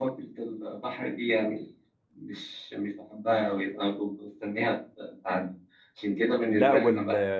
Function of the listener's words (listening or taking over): taking over